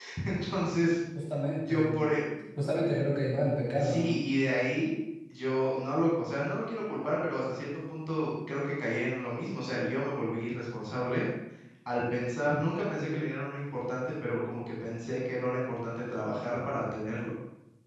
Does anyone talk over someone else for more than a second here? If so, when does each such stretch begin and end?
none

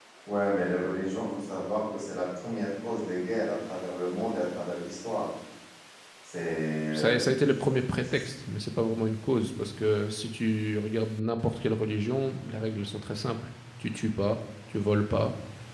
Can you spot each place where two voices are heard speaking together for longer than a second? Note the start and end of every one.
none

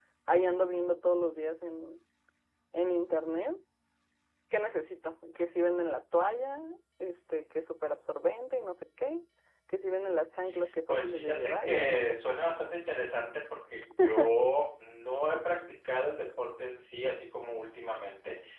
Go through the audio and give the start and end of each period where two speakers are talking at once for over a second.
10.9-12.2

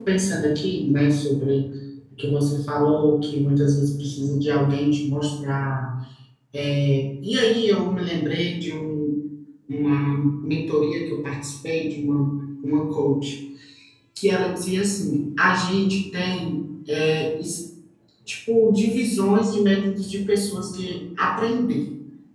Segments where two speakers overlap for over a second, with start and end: none

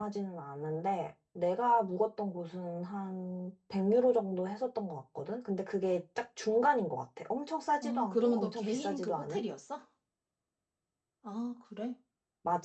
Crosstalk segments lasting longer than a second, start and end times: 7.8-9.4

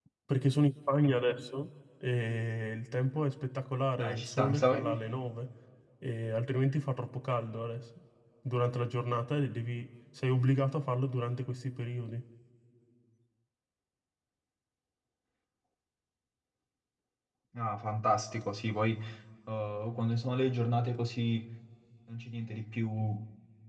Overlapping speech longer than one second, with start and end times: 4.0-5.2

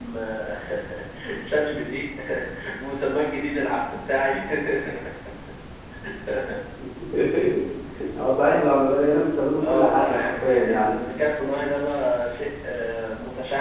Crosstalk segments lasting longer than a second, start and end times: 9.6-11.0

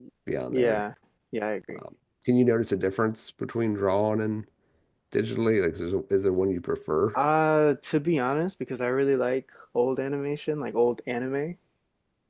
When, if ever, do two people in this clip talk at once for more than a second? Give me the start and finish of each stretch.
none

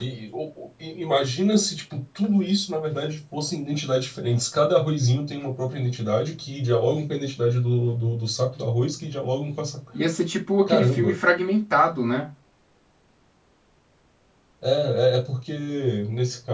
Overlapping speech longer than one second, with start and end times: none

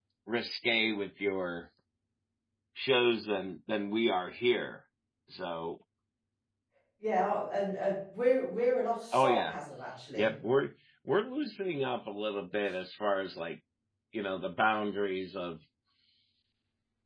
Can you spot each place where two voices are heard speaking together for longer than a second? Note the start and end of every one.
none

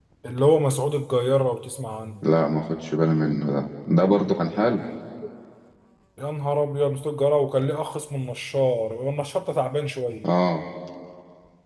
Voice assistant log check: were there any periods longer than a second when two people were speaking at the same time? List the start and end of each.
none

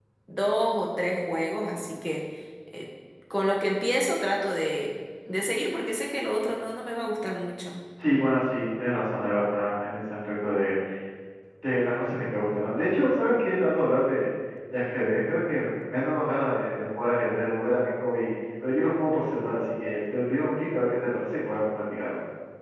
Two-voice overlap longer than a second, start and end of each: none

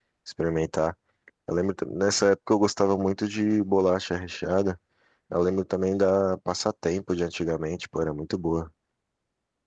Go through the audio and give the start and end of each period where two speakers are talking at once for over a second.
none

